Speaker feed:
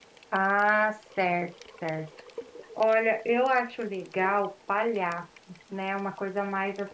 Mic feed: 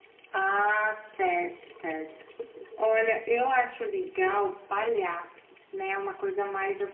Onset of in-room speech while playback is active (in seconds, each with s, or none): none